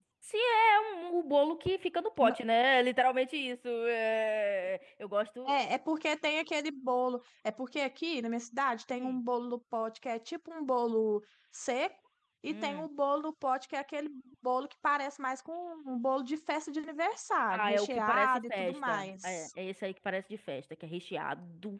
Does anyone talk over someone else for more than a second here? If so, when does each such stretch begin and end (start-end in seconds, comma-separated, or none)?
17.5-19.5